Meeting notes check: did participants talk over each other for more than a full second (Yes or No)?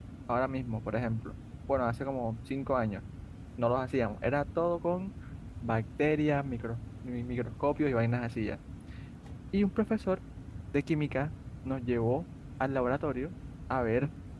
No